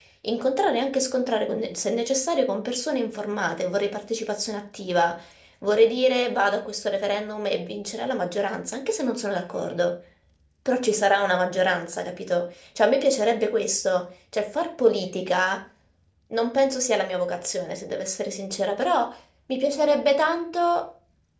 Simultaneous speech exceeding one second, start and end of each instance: none

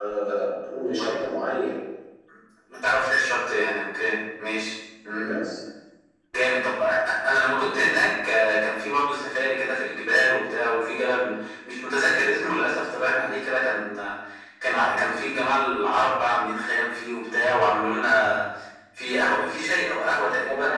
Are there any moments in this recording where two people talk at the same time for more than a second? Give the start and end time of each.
none

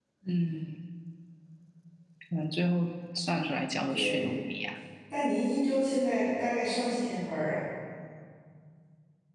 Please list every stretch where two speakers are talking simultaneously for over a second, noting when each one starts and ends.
none

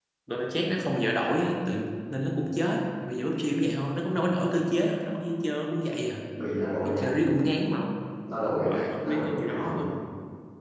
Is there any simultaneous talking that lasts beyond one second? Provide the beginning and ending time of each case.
8.4-9.8

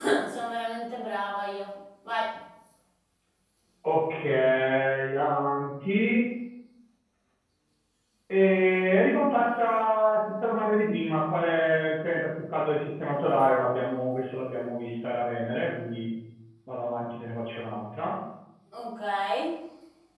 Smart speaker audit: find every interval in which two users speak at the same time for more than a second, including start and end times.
none

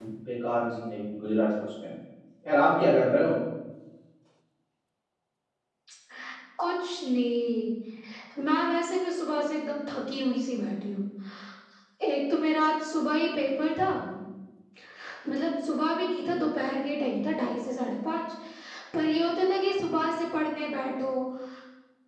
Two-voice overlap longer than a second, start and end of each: none

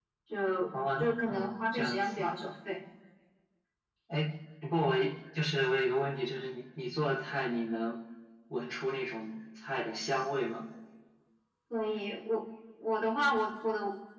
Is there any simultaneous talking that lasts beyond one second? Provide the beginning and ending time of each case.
0.7-2.2

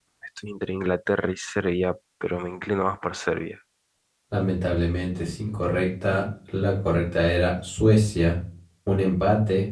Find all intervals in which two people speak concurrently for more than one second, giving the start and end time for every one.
none

